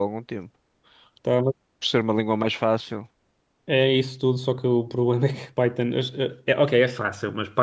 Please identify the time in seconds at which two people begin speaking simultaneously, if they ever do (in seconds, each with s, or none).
none